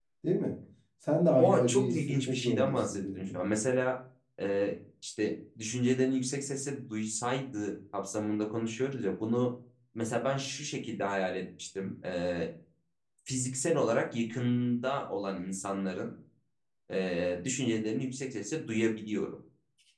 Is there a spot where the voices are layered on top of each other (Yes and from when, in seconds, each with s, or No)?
Yes, from 1.4 s